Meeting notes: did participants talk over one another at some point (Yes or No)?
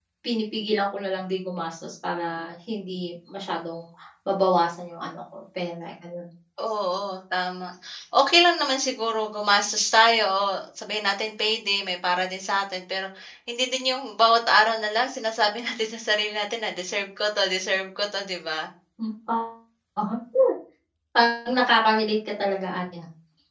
No